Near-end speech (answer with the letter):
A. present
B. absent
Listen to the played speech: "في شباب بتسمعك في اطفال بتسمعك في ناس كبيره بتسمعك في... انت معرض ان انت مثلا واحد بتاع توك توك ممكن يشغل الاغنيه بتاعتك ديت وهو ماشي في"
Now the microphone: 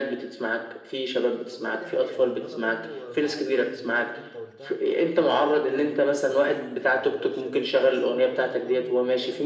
A